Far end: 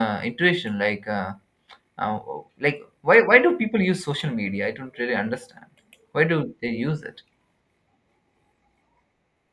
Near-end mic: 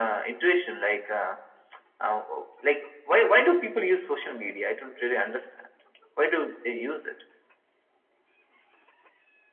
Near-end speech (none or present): none